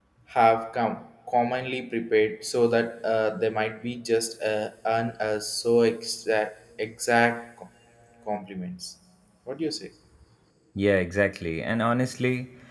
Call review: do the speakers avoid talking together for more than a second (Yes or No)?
Yes